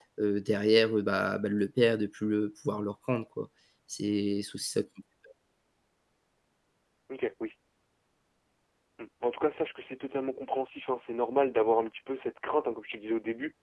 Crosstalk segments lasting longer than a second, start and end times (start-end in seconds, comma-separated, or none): none